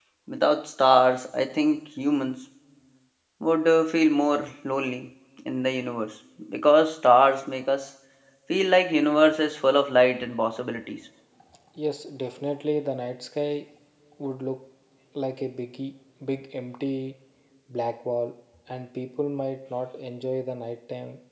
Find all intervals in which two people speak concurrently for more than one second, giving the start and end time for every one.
none

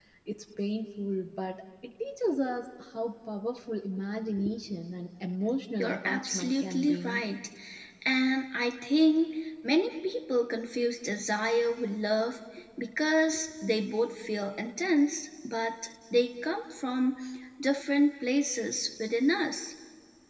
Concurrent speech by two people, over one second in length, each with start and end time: 5.8-7.2

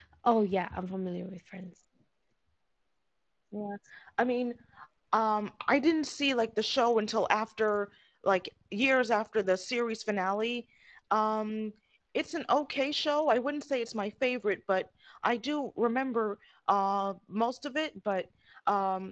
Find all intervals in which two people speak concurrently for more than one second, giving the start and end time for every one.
none

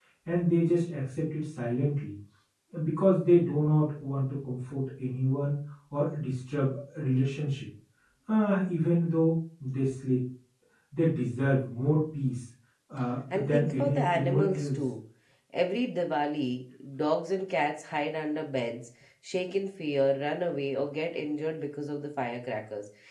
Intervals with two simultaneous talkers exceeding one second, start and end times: 13.3-14.7

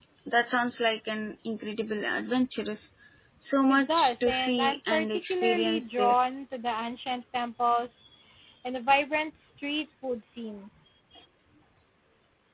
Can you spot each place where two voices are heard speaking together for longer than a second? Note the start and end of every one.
3.7-6.2

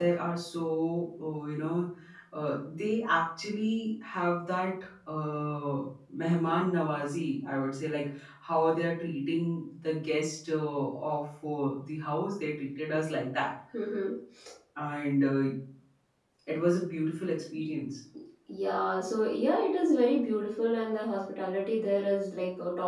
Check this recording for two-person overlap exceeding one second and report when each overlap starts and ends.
none

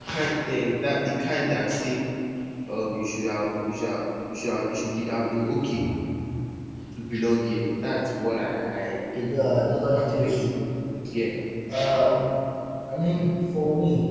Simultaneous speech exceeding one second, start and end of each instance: 9.3-10.5

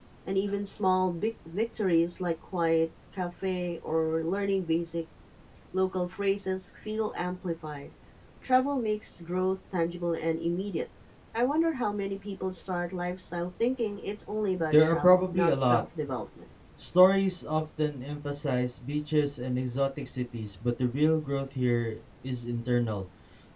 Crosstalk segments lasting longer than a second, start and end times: 14.6-15.8

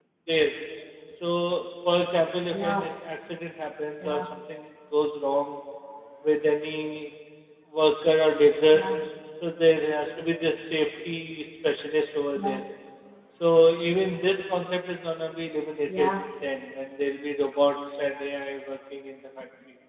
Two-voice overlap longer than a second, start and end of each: none

